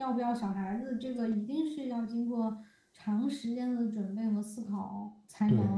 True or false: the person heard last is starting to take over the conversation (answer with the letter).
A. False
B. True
A